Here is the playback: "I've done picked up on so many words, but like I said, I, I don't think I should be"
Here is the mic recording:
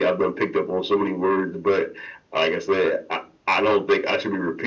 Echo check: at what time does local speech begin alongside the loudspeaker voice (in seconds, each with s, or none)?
none